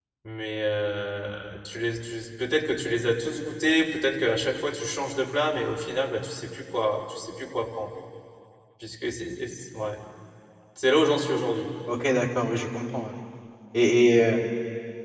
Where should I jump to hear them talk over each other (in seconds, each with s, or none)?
none